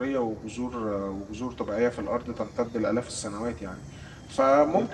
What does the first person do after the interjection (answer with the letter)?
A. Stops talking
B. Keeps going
B